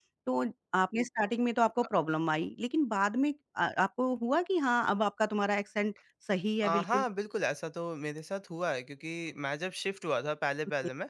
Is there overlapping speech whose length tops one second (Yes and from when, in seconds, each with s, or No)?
No